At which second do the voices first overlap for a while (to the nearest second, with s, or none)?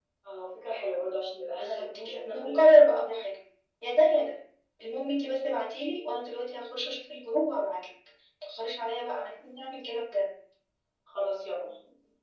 2 s